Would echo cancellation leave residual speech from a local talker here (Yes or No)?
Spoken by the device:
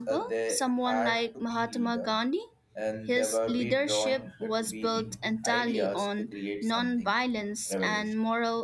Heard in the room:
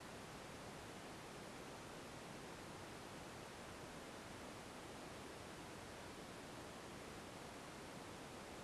No